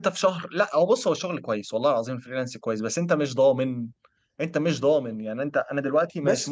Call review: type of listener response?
listening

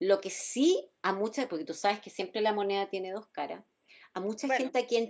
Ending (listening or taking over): listening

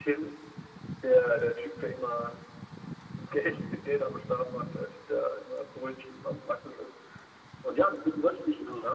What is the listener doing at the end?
listening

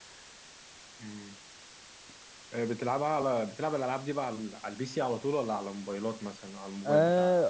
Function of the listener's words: taking over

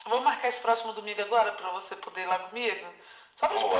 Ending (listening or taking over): taking over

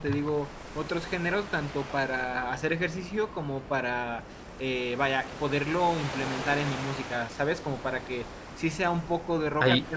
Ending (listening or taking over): listening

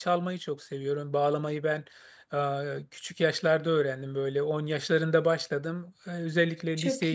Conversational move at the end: listening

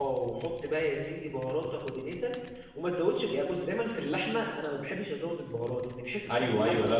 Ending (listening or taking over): taking over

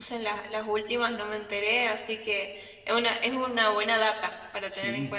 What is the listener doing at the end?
taking over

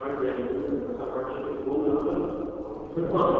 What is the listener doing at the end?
taking over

